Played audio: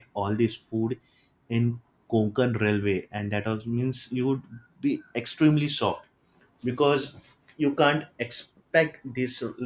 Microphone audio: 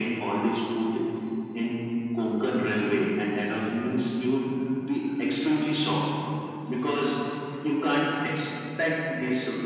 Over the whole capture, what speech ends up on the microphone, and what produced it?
echo only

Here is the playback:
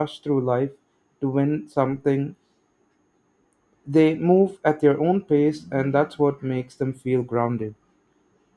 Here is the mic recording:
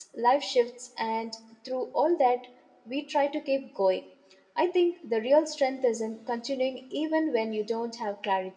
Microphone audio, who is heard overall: user only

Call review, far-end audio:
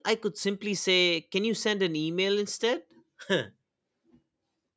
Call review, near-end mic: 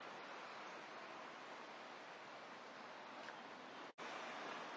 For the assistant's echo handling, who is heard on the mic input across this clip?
neither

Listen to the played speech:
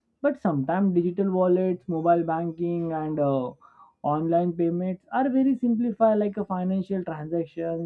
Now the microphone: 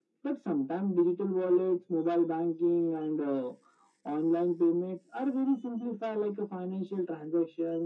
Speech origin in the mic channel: echo only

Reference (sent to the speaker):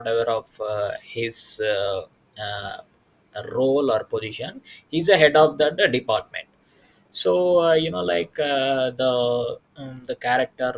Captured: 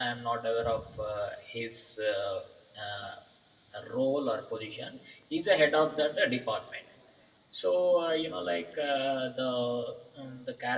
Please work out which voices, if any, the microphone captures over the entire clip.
echo only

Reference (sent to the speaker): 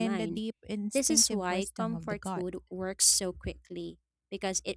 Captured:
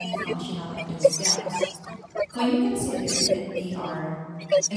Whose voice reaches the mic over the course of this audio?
both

